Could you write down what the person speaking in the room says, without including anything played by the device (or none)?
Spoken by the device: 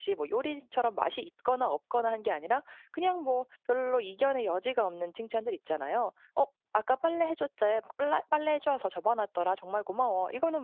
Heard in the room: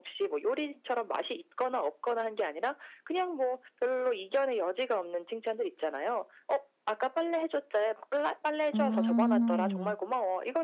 음.